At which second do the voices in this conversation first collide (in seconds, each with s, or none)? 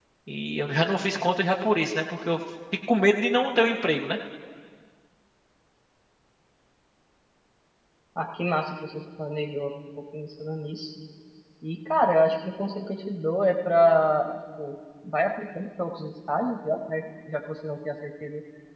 none